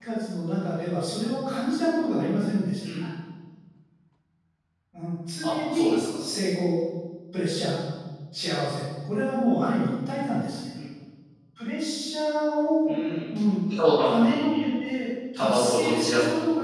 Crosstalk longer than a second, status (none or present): present